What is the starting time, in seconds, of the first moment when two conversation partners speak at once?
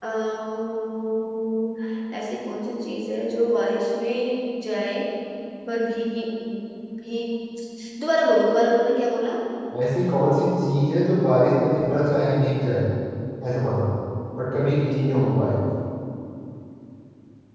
none

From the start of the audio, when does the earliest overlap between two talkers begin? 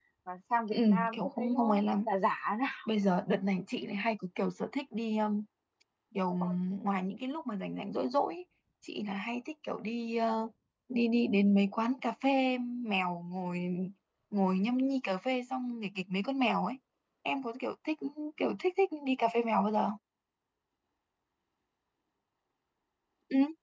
0.7 s

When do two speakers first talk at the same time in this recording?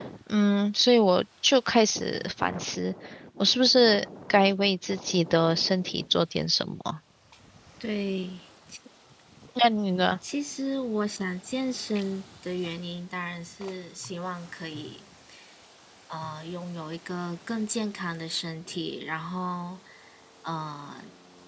none

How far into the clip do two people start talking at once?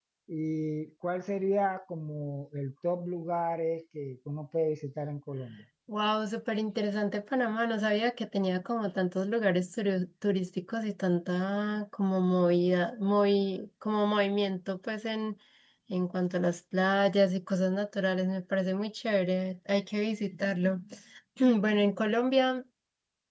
none

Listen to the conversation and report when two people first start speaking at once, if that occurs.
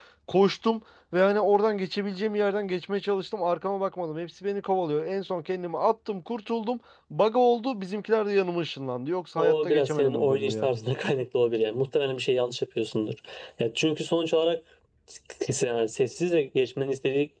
9.4 s

